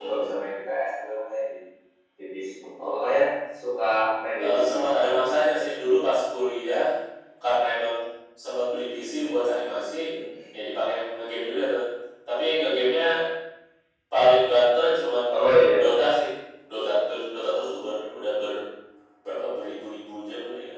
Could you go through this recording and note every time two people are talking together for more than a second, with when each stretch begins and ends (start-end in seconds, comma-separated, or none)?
4.4-5.7